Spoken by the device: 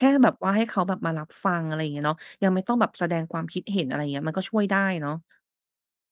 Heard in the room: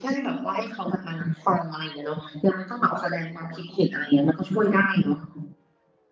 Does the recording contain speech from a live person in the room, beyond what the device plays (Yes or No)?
No